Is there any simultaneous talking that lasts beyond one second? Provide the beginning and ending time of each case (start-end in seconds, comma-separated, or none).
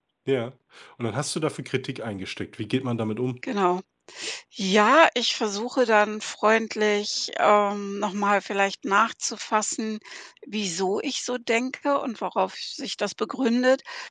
none